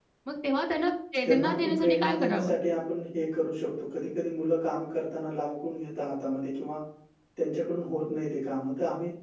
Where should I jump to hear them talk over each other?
1.2 s

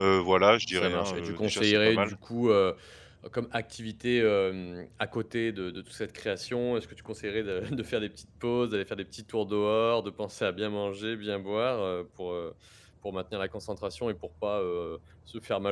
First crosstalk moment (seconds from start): 0.7 s

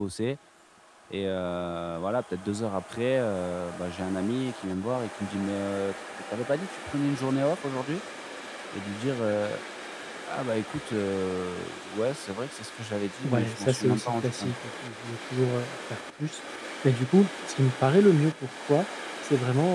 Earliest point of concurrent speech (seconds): 13.2 s

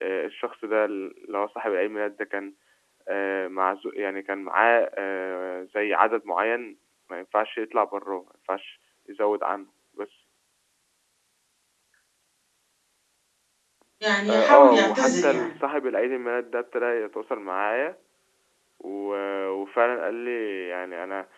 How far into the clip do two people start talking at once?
14.3 s

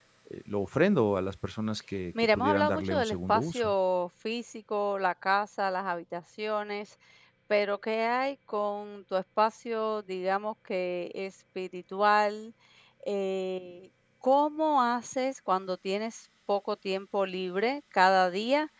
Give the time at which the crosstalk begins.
2.1 s

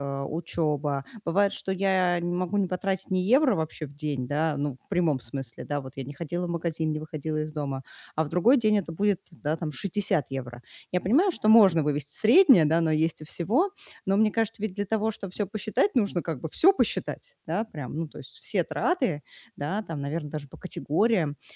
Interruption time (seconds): none

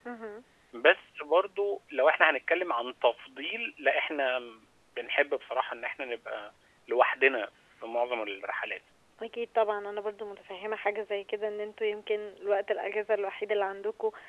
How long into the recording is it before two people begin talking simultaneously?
none

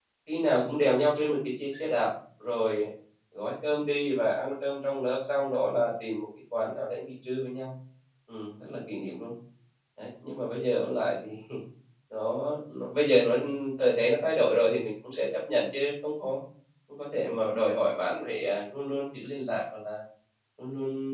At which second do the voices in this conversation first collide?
none

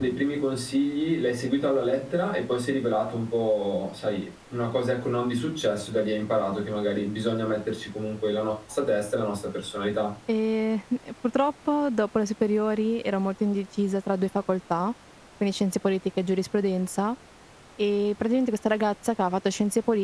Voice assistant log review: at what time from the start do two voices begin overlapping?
none

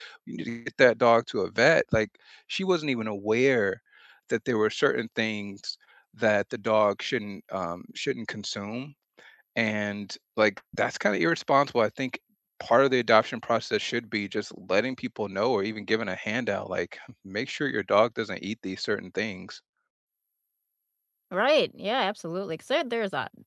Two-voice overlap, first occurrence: none

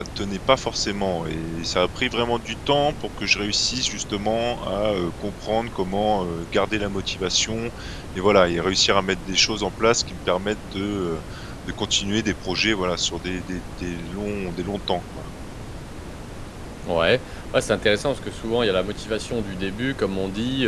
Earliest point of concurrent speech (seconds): none

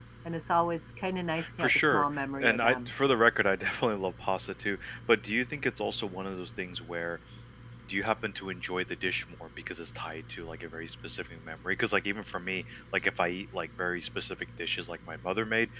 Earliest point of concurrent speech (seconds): 1.4 s

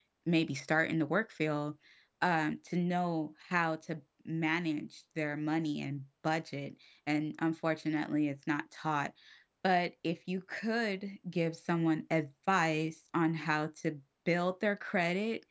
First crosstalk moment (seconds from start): none

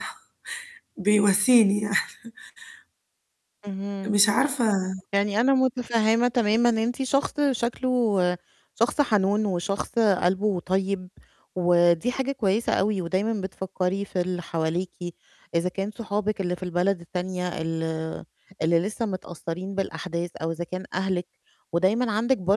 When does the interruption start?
none

